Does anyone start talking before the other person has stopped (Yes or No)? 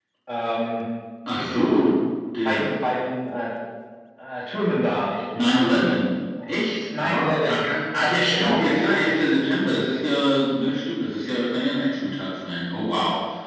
Yes